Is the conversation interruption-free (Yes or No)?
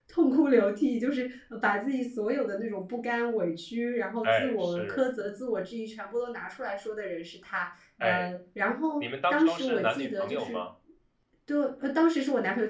No